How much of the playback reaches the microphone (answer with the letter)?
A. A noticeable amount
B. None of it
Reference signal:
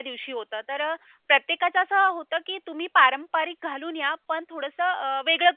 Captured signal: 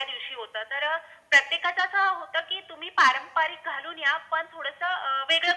A